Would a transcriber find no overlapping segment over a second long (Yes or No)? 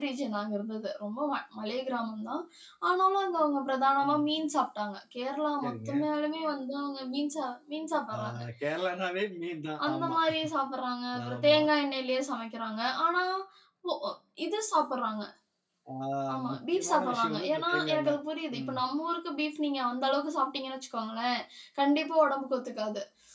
No